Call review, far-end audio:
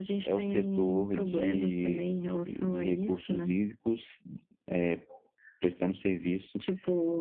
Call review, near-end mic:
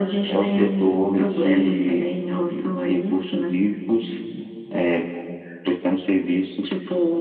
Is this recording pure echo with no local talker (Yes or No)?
Yes